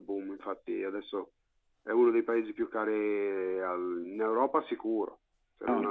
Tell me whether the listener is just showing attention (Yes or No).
No